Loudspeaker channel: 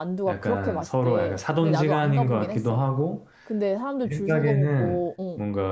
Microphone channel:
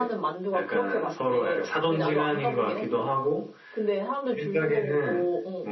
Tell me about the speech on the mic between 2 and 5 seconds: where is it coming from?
echo only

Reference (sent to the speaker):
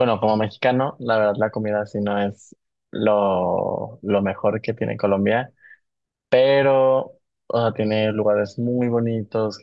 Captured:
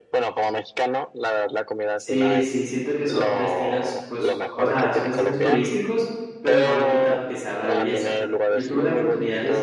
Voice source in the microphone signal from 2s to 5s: both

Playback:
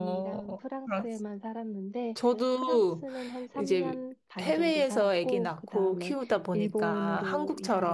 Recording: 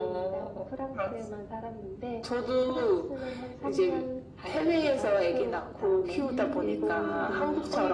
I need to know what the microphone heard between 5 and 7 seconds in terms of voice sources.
both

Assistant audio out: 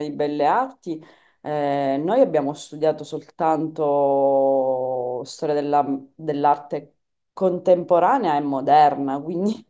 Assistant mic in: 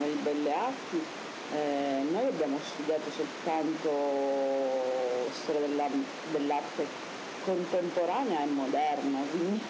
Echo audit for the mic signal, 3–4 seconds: echo only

